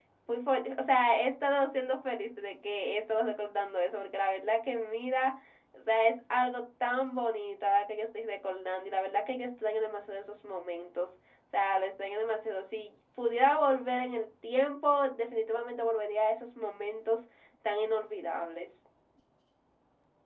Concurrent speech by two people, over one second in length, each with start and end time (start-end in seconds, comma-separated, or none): none